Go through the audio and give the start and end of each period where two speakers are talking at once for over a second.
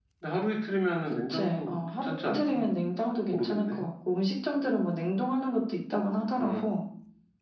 1.3-2.6

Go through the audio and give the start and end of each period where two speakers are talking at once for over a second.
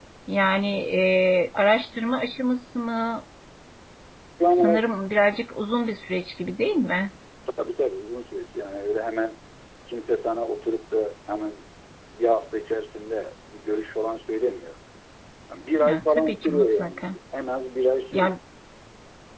15.8-17.1

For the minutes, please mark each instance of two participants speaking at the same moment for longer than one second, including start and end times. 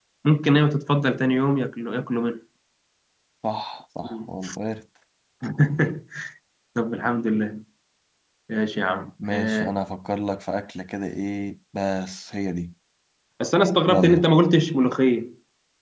none

